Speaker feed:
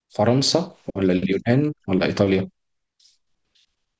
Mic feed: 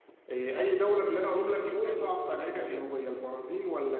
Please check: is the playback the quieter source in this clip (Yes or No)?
Yes